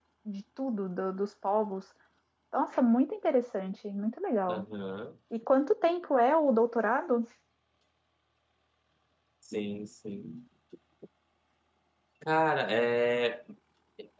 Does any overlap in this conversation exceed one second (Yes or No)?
No